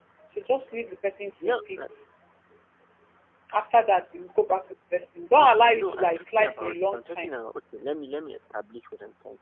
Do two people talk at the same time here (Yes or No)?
Yes